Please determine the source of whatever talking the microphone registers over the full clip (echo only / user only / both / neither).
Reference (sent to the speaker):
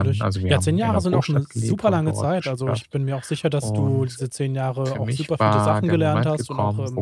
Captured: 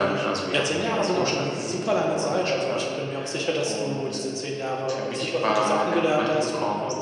echo only